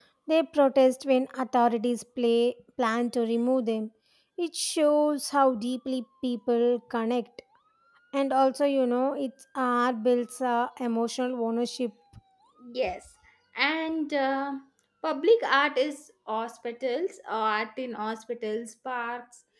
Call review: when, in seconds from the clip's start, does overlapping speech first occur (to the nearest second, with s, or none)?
none